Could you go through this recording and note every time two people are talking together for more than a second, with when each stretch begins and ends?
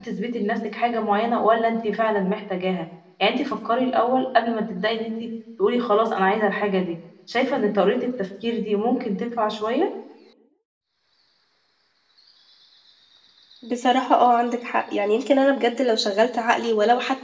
none

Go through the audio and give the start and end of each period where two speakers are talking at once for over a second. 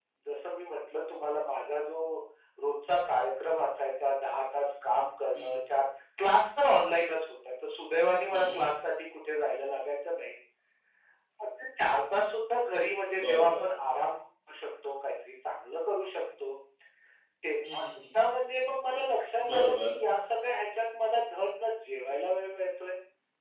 none

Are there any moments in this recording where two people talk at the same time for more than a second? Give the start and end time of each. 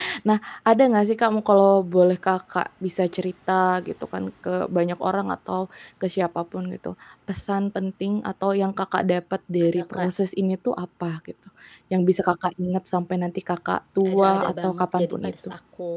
14.1-15.3

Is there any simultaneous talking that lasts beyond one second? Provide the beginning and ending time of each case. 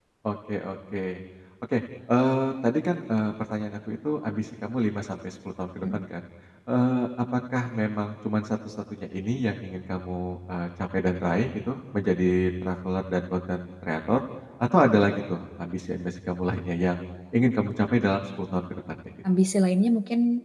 none

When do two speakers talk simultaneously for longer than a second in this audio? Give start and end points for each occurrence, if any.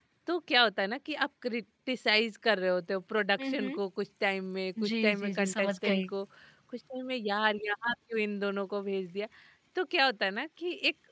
4.8-6.1

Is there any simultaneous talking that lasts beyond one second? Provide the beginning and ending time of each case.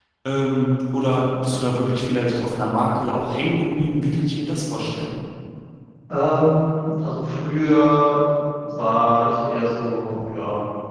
none

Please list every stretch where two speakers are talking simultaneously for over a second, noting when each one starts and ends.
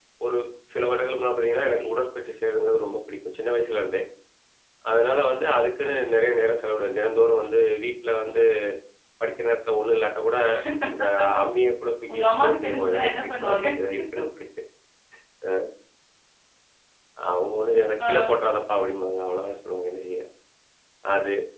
12.1-13.6

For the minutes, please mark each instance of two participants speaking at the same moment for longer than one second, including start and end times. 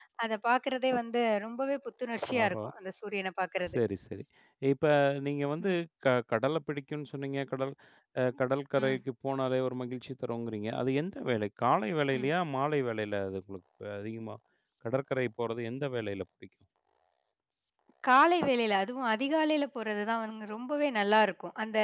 none

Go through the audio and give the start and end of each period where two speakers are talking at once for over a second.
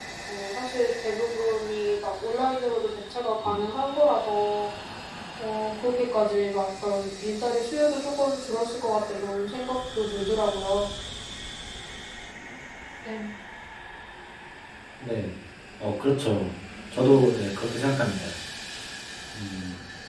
none

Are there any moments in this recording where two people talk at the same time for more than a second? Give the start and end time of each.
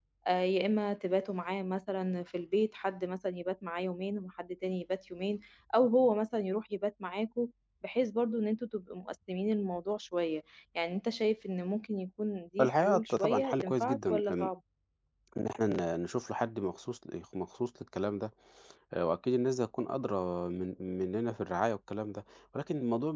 12.6-14.5

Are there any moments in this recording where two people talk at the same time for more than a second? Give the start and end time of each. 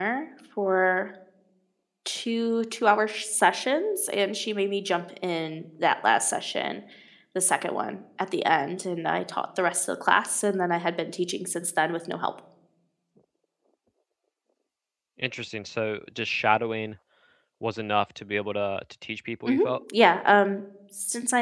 none

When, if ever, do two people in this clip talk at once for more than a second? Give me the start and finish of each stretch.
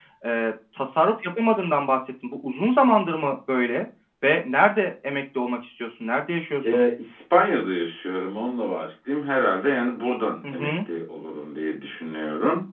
none

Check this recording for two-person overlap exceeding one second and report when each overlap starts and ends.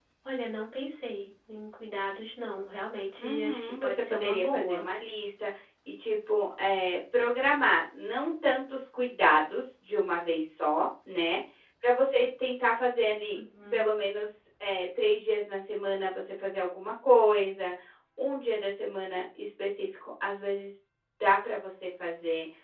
3.2-4.9

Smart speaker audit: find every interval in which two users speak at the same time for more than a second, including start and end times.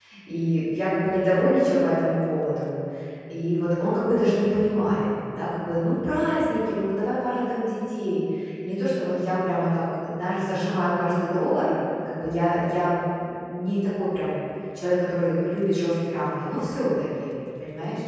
none

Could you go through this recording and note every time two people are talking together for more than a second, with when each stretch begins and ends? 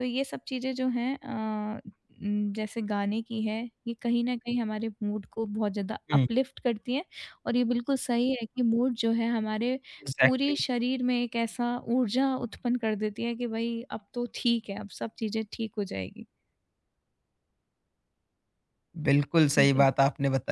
none

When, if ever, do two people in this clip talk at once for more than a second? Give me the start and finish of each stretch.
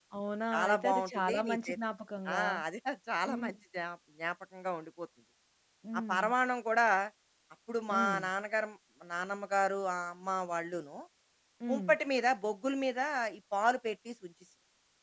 0.5-1.8

